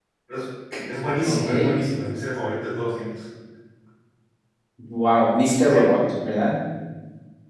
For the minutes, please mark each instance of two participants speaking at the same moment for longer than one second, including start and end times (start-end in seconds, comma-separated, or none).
none